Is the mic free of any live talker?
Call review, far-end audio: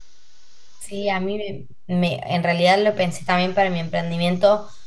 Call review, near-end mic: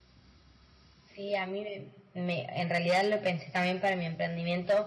Yes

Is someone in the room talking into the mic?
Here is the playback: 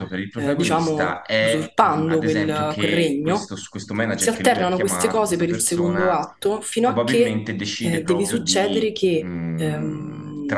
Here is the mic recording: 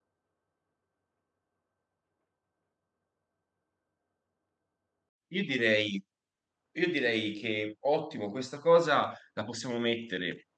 Yes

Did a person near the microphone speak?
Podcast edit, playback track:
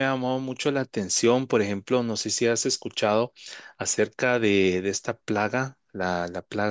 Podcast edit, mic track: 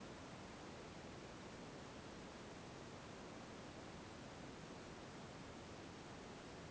No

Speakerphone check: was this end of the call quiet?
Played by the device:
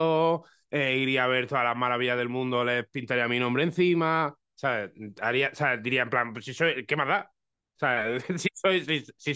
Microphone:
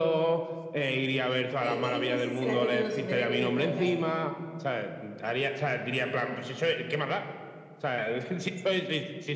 No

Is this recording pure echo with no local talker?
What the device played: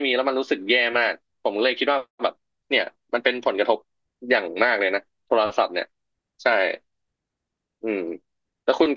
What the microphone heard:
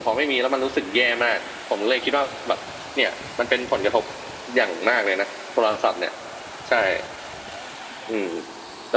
Yes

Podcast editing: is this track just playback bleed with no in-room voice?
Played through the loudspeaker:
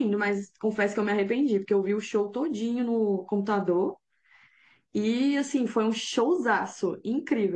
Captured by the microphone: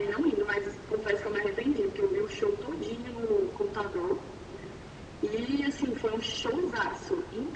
Yes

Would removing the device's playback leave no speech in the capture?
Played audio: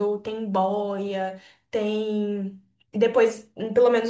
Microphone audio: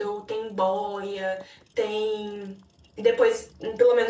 Yes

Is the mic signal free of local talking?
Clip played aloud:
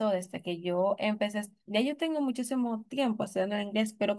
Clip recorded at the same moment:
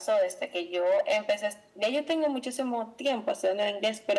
Yes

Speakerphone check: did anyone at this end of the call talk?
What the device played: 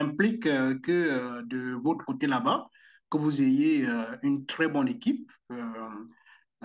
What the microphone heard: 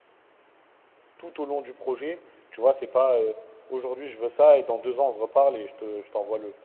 Yes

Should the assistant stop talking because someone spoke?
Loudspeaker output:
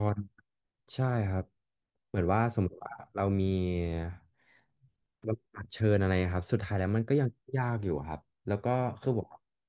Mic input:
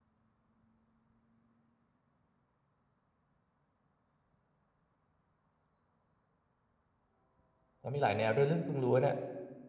Yes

